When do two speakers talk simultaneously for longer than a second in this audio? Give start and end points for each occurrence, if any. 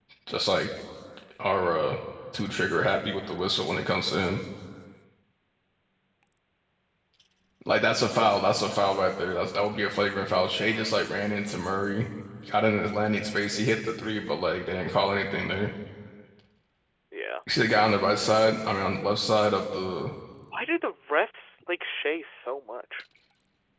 none

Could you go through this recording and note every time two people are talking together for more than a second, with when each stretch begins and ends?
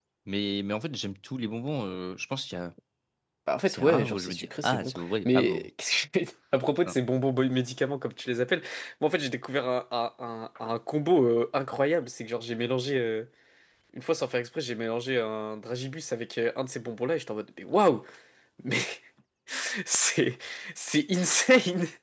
3.7-5.7

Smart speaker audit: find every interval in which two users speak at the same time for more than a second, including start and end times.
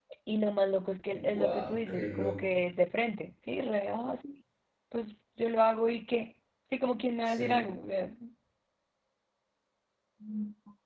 1.1-2.6

